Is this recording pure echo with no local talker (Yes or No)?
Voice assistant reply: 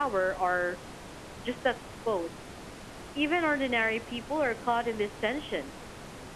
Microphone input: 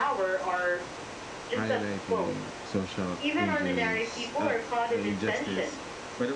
No